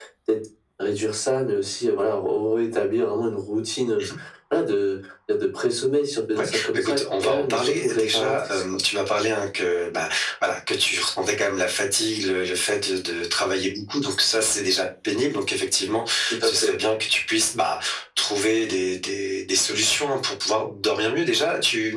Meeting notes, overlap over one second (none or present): present